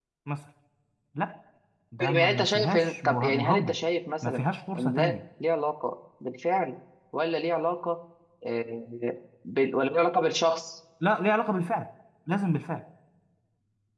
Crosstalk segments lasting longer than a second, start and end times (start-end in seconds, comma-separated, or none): 2.0-3.7